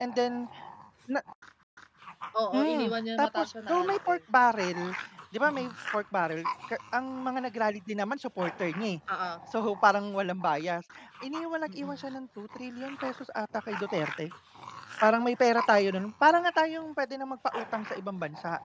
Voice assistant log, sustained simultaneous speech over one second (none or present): present